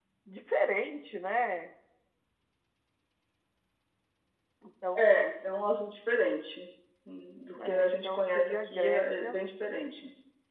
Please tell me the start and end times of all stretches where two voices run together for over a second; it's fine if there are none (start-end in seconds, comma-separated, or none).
7.7-9.3